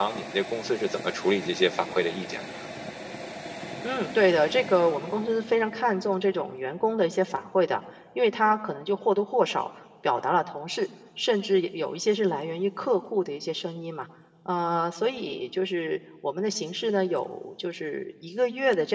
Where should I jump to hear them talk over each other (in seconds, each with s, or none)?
none